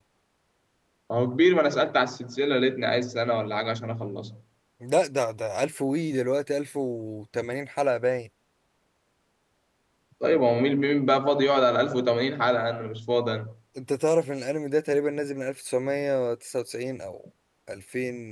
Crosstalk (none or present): none